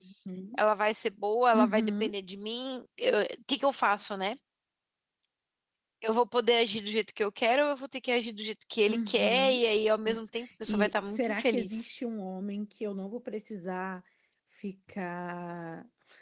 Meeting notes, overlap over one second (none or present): present